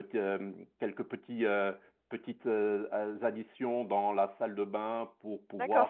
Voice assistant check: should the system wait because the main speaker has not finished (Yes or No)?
No